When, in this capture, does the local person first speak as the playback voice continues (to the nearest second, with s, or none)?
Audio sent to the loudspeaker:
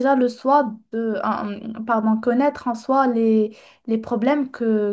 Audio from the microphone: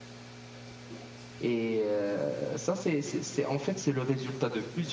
1 s